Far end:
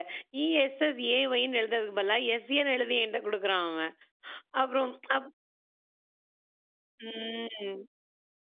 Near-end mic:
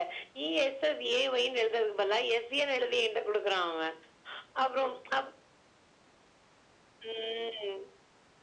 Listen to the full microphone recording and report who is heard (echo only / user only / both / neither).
echo only